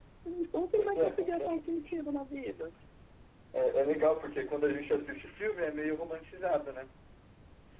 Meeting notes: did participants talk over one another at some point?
Yes, from 0.8 s

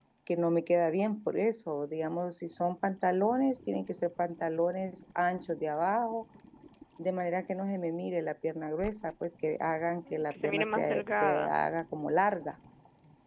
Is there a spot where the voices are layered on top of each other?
Yes, from 10.1 s

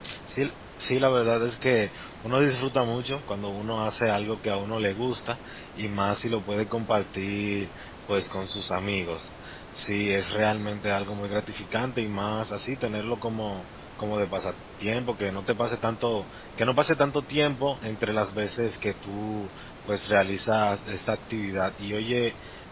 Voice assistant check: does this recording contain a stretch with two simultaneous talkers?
No

